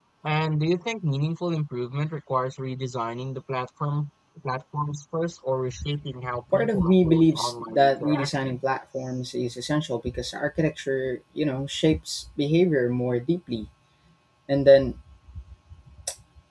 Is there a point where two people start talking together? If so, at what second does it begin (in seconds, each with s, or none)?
6.5 s